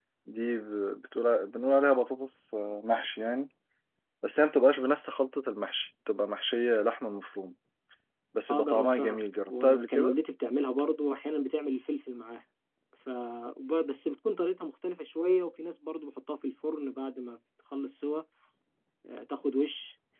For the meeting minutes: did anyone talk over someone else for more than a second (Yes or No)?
Yes